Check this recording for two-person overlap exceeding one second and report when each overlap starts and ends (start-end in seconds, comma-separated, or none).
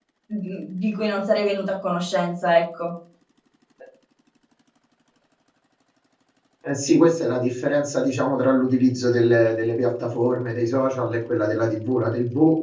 none